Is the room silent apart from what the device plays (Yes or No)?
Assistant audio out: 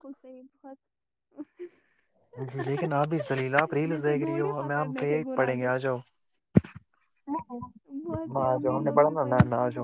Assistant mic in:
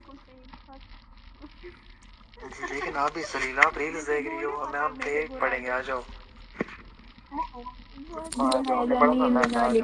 No